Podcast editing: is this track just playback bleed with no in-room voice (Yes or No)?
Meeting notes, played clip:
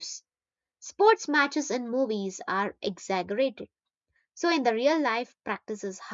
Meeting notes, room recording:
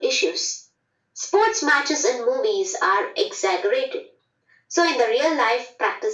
Yes